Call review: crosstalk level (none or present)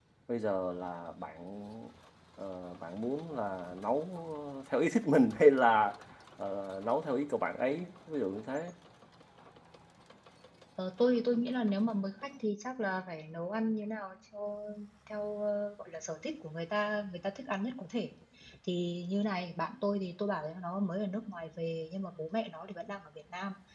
none